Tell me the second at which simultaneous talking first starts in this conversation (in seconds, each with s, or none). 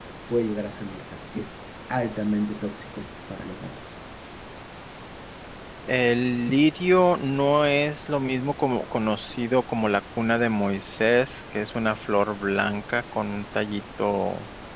none